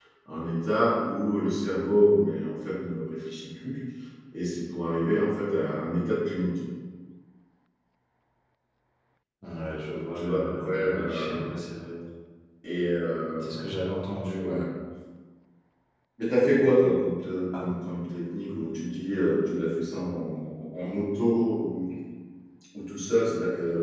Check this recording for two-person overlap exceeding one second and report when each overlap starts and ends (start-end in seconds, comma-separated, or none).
10.2-11.5